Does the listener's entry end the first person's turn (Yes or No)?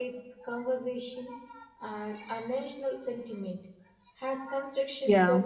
No